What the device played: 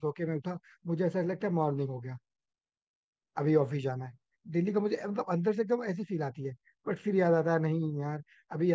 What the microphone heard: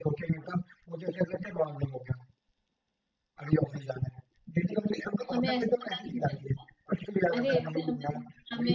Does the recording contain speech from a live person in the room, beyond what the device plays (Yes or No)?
Yes